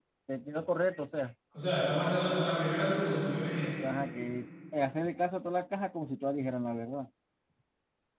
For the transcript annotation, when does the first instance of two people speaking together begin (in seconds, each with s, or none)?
none